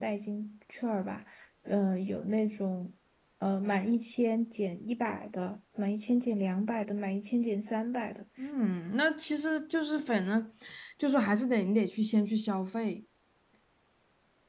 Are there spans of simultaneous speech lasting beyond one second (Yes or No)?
No